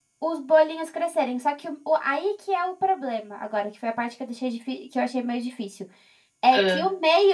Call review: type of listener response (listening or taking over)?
listening